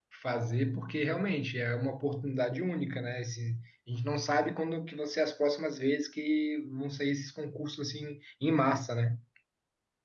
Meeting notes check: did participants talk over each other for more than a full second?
No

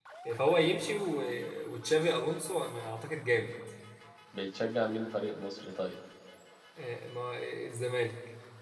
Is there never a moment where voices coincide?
Yes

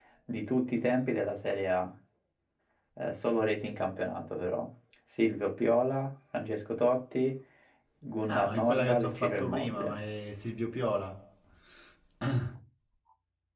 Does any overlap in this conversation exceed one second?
Yes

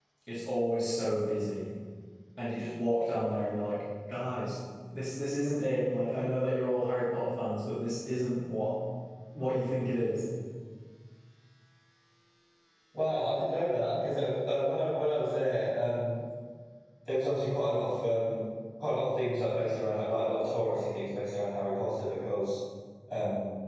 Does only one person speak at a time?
Yes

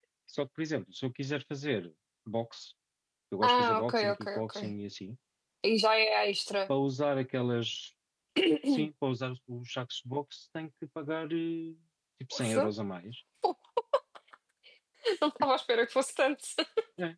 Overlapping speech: Yes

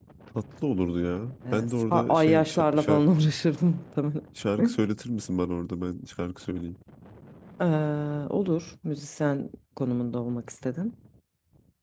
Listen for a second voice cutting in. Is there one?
Yes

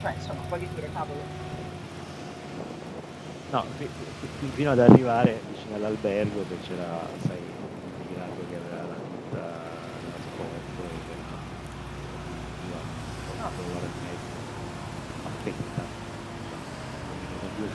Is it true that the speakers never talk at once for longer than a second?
Yes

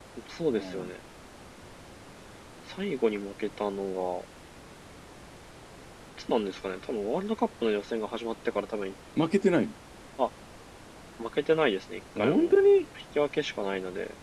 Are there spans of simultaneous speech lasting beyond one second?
No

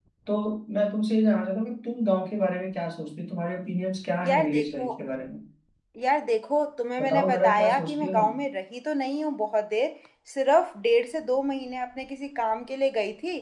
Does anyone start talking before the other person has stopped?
Yes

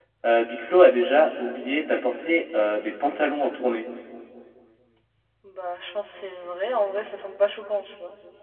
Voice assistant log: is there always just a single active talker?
Yes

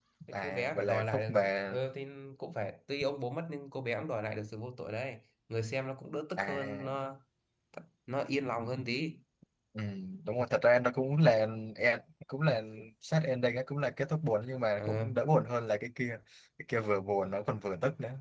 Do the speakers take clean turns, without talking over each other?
No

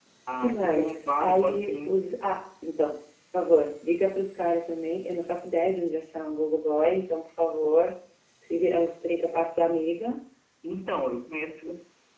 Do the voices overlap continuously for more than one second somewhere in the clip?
Yes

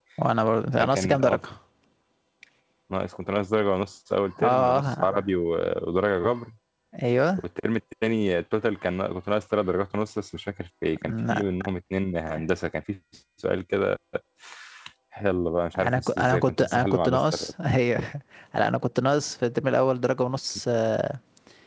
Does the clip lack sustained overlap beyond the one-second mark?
No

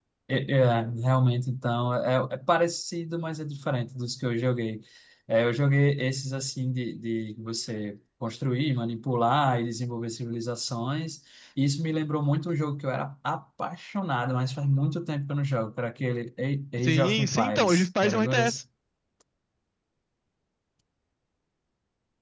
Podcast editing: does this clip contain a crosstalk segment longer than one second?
Yes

